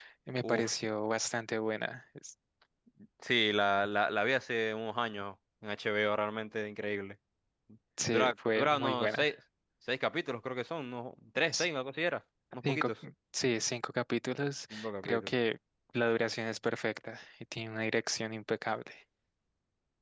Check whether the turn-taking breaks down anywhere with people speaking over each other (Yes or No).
Yes